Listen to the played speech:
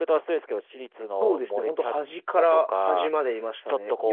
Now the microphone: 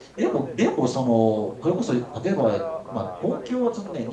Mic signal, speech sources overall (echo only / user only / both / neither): both